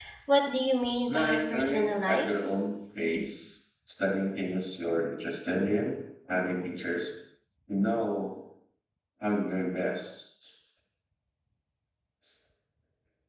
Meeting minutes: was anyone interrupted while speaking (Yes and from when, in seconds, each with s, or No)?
Yes, from 1.1 s